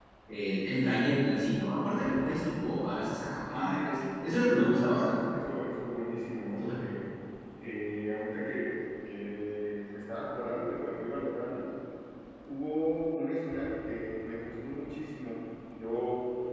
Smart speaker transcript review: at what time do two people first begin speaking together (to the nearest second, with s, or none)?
3 s